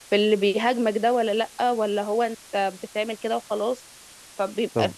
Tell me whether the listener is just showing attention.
Yes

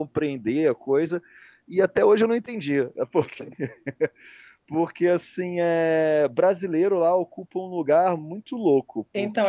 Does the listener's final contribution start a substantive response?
Yes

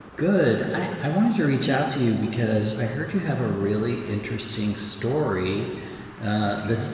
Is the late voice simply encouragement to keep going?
Yes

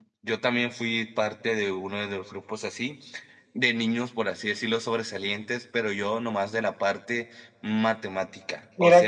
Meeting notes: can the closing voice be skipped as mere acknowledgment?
No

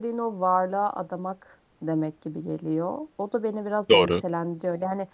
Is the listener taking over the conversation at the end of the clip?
No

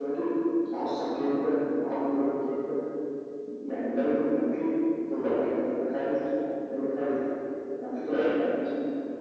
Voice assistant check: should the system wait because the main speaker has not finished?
Yes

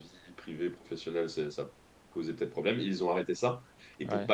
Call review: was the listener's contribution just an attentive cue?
Yes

